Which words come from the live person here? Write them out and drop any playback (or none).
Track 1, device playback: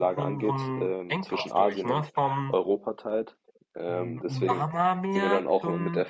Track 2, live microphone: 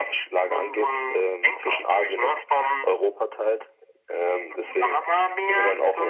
none